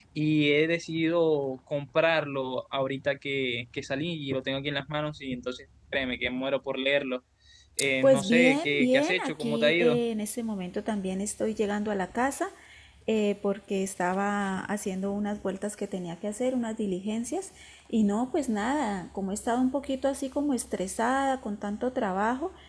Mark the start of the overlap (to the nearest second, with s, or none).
8 s